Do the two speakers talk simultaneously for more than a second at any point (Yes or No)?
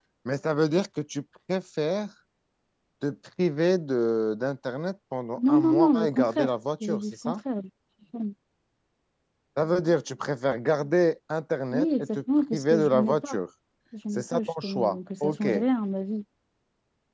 Yes